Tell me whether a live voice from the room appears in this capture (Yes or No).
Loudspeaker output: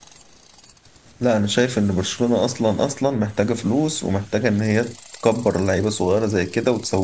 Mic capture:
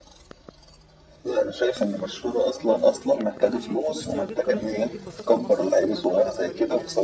Yes